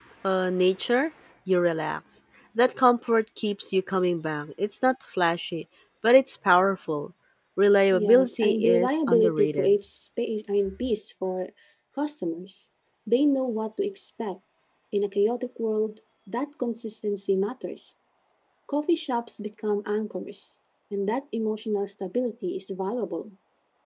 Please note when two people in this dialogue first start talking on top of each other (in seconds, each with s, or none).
7.9 s